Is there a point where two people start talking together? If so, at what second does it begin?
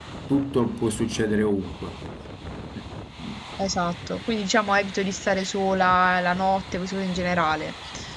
none

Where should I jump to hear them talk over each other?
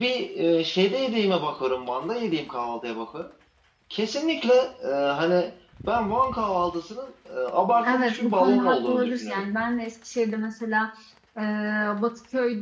7.7 s

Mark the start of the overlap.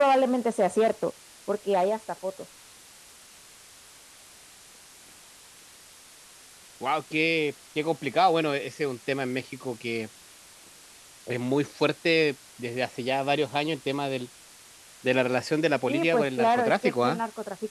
15.9 s

